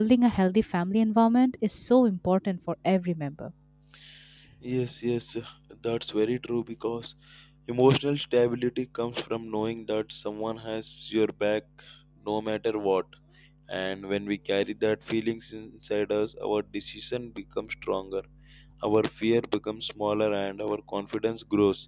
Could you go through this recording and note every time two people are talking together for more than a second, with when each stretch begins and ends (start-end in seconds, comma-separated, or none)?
none